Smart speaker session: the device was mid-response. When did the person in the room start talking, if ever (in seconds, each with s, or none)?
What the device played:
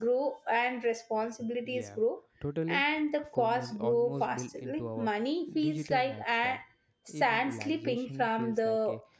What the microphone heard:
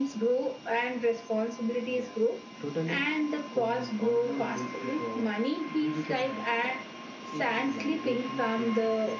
none